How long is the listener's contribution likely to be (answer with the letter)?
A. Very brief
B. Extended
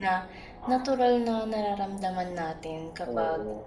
A